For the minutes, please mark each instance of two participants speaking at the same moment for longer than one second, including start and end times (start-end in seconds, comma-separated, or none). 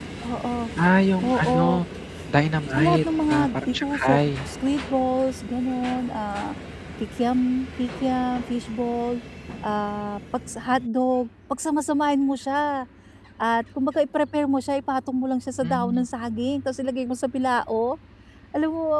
2.7-4.5